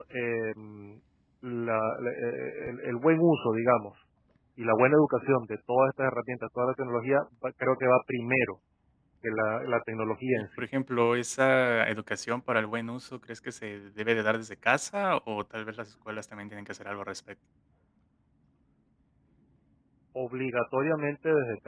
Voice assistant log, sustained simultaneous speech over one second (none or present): none